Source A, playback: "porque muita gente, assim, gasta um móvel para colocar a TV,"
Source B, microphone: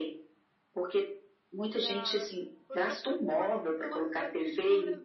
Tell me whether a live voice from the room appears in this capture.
Yes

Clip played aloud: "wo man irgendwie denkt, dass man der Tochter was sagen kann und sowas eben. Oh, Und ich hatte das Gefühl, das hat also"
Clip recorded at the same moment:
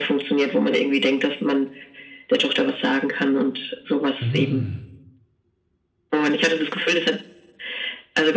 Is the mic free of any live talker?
No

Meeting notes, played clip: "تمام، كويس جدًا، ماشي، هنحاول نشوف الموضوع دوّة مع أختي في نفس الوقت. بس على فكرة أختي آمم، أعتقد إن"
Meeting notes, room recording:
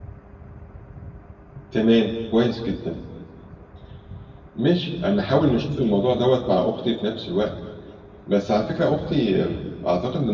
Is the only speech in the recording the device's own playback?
Yes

